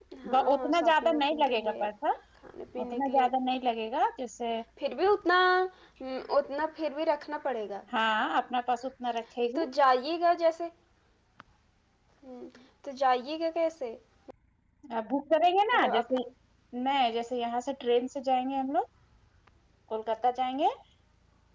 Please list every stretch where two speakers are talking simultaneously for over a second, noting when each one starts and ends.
0.5-1.9

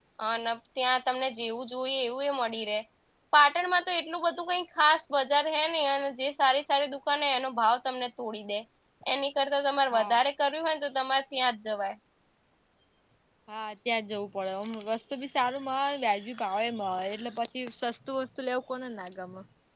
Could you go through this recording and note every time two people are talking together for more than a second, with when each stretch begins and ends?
none

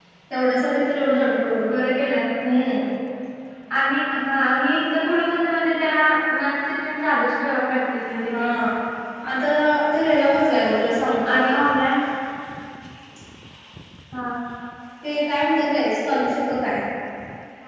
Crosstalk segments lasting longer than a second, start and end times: none

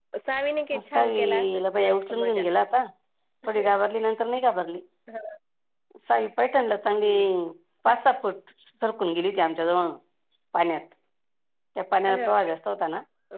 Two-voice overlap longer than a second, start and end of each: 0.9-2.4

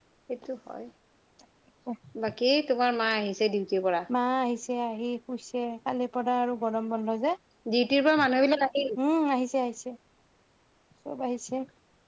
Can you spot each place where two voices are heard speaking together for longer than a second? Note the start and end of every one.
none

